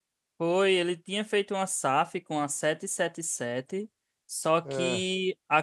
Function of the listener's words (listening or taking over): listening